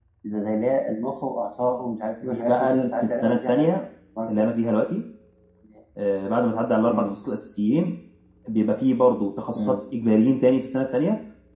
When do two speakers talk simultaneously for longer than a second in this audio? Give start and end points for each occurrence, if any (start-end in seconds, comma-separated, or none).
2.2-3.7